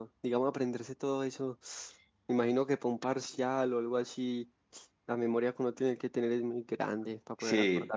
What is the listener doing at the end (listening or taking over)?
taking over